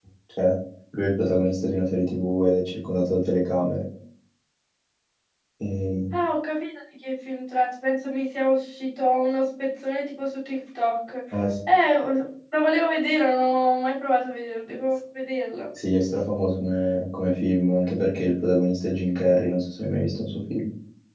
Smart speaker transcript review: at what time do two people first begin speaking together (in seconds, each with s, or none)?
none